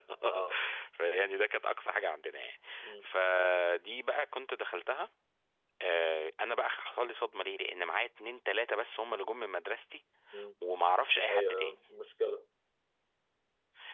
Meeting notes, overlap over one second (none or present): none